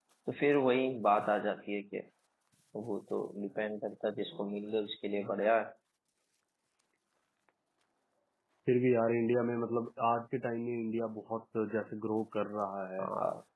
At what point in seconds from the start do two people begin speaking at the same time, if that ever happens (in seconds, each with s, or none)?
none